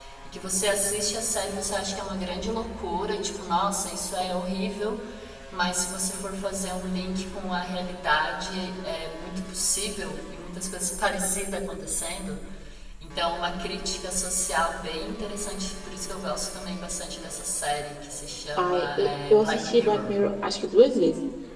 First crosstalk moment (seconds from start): 19 s

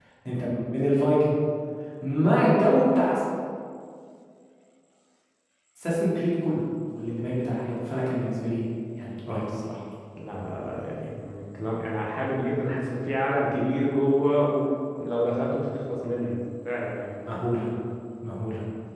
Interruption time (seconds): none

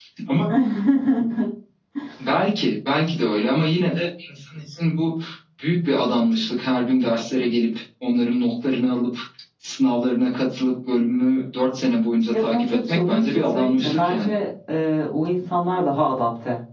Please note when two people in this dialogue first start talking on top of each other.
12 s

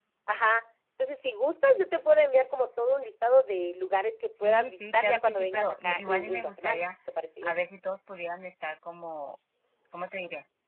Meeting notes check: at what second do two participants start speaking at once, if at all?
4 s

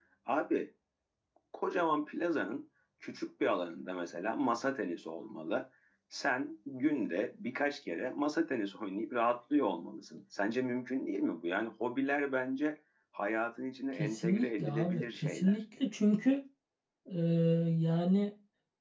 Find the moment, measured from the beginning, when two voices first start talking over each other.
14 s

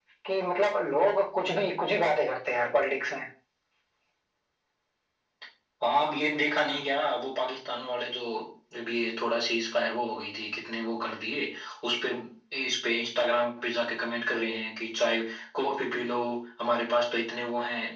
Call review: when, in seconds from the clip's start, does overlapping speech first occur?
none

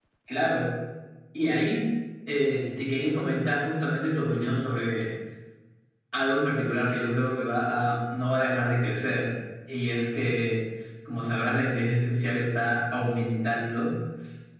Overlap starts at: none

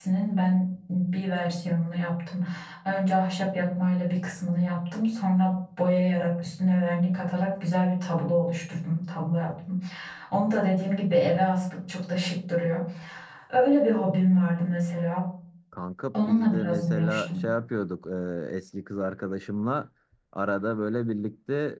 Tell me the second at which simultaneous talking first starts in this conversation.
16 s

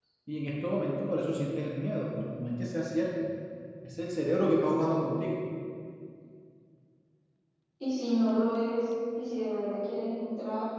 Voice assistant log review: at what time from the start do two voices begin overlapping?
none

